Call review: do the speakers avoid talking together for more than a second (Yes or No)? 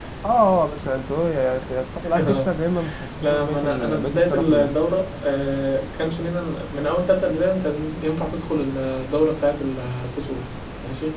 No